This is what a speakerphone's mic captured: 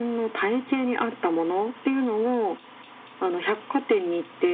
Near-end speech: none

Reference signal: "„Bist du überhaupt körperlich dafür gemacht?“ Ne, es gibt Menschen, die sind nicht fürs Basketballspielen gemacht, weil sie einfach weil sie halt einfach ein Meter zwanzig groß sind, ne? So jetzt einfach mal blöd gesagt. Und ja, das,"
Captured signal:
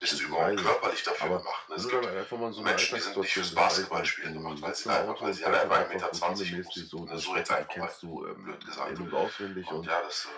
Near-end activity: present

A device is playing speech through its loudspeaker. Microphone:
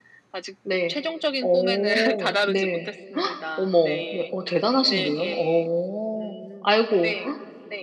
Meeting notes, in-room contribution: present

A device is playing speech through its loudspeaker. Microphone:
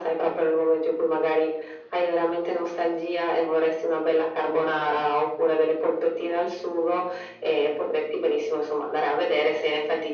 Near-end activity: none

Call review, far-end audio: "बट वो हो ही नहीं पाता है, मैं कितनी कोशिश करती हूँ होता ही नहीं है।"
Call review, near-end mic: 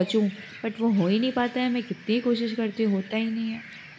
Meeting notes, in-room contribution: none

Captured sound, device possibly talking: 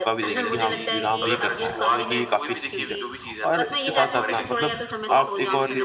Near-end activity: present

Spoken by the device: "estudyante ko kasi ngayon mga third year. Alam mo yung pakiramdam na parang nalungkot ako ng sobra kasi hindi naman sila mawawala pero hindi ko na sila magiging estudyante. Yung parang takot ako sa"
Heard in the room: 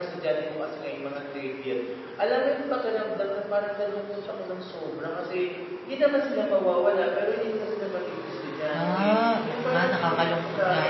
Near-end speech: present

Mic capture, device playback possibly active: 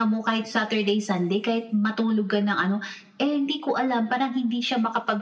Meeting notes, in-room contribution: none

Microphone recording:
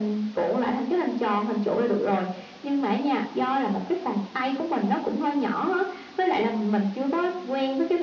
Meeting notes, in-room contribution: none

